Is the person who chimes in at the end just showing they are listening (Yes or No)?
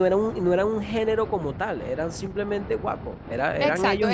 No